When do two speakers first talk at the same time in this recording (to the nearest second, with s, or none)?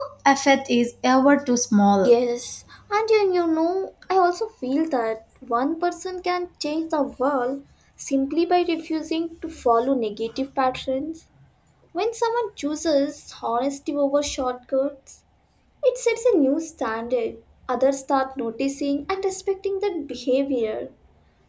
none